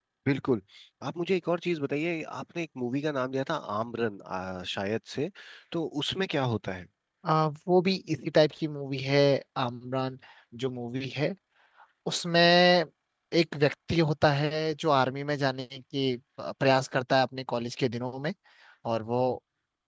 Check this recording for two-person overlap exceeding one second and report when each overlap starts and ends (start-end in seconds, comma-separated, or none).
none